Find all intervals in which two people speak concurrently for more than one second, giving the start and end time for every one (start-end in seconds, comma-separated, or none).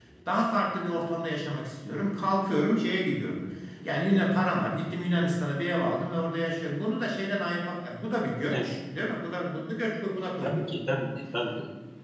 none